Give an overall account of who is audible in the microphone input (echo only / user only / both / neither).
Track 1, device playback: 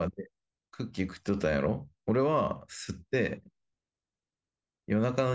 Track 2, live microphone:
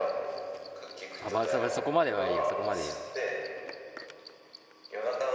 both